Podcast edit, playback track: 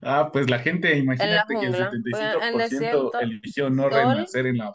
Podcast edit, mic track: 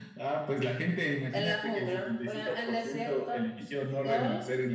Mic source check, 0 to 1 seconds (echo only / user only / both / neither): echo only